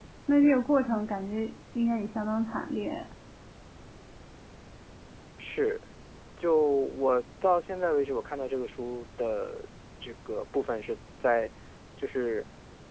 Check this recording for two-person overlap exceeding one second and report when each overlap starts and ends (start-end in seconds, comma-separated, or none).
none